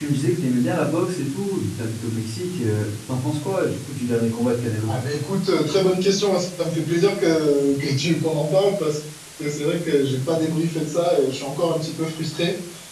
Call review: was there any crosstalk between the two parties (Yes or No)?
No